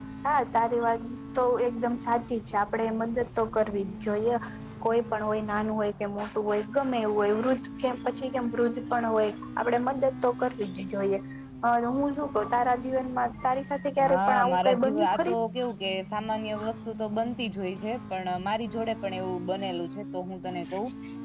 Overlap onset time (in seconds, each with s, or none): 14.0 s